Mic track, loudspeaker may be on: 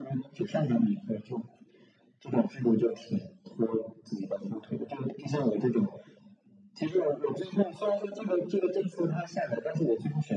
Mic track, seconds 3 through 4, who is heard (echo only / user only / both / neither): echo only